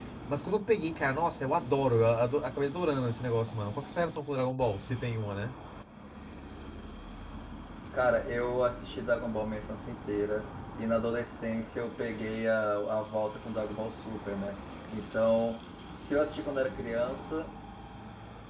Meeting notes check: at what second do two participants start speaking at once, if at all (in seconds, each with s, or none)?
none